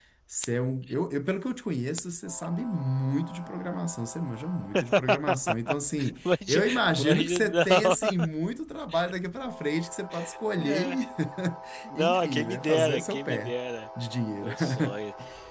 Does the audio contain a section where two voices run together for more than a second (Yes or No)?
Yes